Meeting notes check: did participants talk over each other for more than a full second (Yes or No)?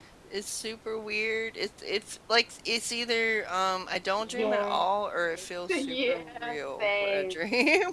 Yes